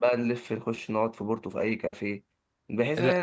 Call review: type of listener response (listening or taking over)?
listening